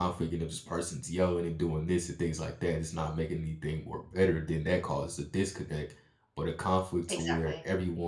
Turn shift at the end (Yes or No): No